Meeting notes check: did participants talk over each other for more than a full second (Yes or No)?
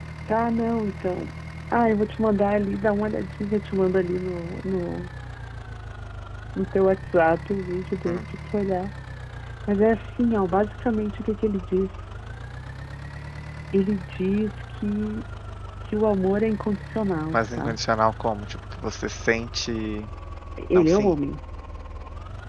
No